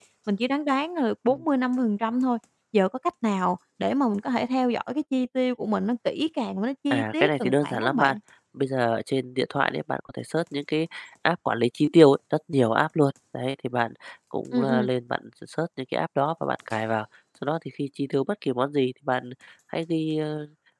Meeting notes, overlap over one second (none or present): present